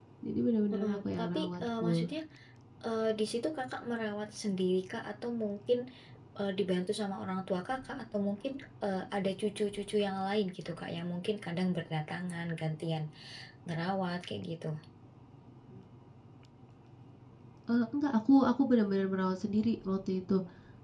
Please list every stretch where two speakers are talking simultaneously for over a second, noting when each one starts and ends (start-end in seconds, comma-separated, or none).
0.7-2.0